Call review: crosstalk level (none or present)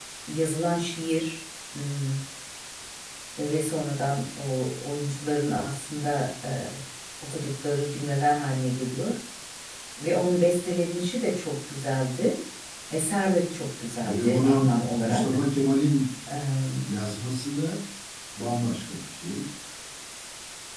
present